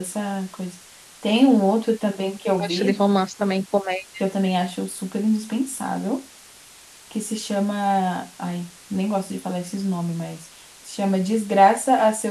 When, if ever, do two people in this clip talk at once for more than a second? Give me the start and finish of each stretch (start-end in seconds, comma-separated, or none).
none